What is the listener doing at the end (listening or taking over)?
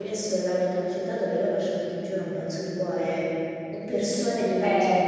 listening